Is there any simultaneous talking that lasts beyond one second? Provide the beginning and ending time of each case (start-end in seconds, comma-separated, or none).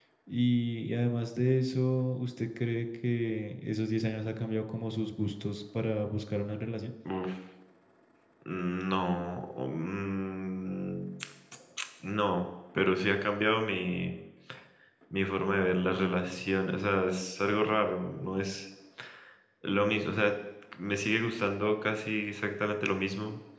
none